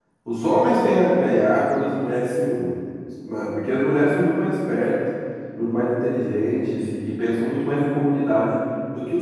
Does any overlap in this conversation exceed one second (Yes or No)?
No